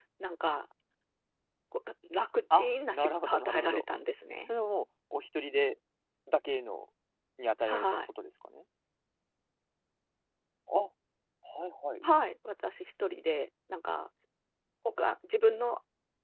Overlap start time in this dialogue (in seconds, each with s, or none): 2.5 s